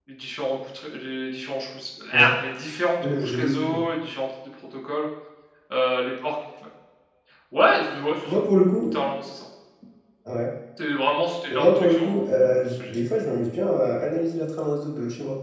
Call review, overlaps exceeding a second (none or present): present